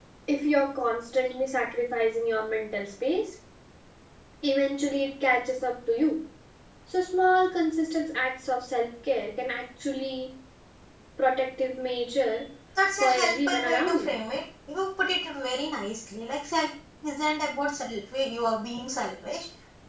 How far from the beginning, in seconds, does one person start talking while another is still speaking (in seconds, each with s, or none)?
13.0 s